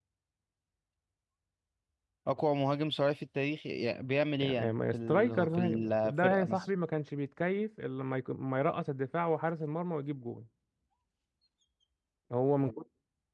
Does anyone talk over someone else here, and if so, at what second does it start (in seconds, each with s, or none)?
4.4 s